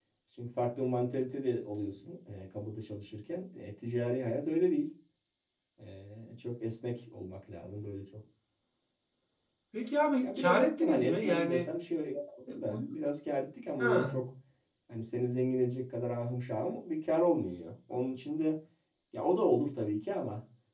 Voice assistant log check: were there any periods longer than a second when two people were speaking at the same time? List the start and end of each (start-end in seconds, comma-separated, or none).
10.2-11.7